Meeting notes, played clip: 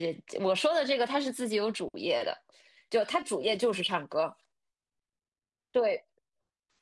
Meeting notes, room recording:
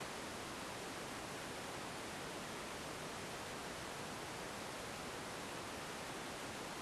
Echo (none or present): none